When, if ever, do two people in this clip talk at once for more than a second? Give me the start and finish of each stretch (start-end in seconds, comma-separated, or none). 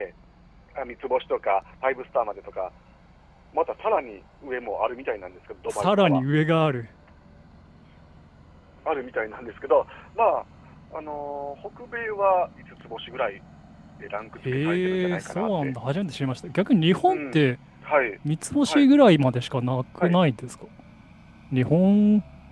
14.4-15.7